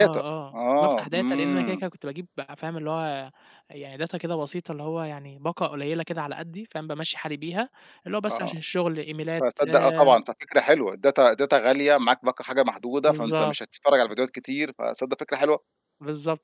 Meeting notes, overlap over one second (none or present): present